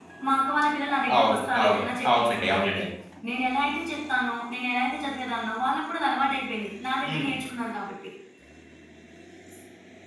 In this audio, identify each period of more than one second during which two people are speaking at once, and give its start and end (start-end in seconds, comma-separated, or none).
1.2-2.8